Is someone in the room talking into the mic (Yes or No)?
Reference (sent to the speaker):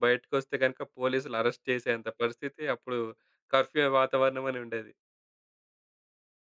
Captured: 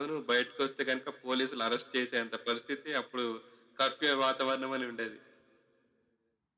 No